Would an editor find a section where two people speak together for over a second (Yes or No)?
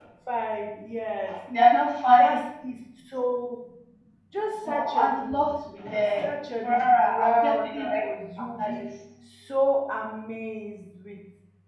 Yes